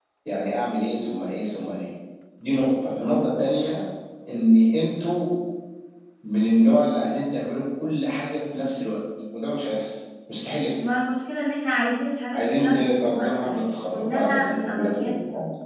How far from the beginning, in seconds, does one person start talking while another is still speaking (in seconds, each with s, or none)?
12.3 s